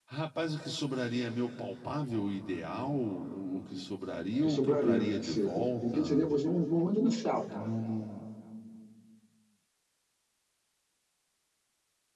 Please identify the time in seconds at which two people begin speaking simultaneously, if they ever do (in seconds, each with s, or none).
4.4 s